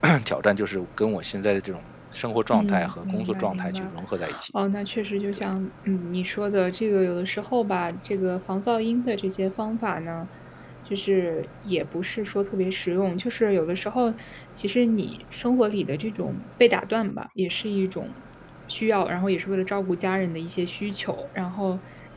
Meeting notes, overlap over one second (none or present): present